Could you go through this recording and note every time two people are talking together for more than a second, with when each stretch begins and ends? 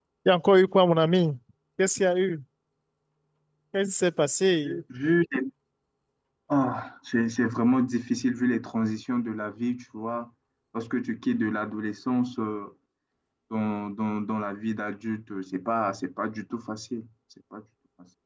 none

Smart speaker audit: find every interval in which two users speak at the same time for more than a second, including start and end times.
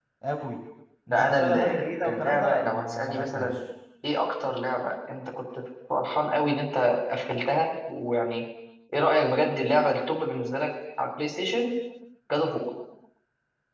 1.1-3.6

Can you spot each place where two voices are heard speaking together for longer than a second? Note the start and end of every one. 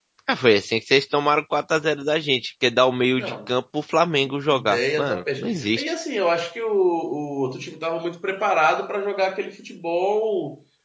4.5-5.9

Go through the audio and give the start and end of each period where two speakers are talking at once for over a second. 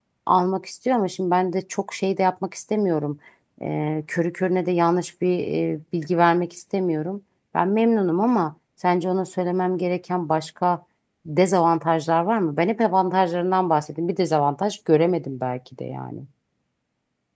none

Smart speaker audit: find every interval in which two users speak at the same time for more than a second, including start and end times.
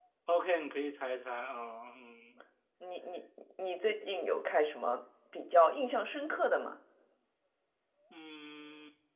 none

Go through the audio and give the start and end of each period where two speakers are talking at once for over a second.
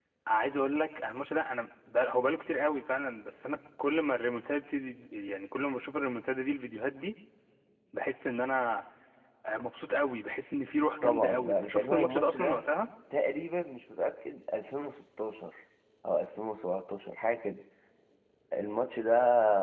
11.0-12.6

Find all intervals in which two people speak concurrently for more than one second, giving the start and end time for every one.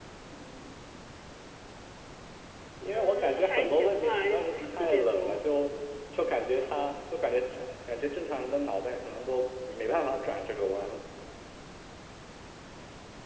2.9-5.4

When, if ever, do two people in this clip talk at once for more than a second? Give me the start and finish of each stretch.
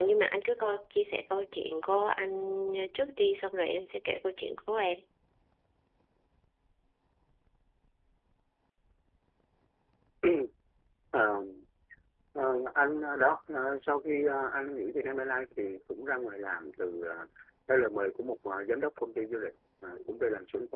none

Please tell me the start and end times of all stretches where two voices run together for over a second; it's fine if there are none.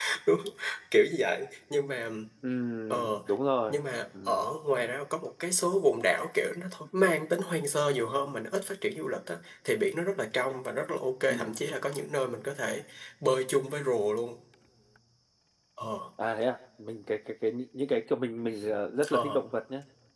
none

